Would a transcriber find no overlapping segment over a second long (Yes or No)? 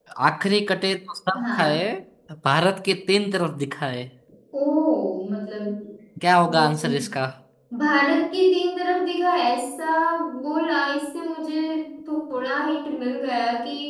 Yes